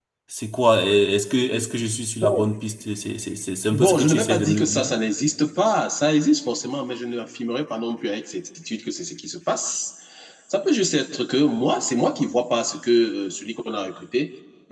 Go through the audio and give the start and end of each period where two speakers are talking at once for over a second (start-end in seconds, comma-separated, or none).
3.7-4.9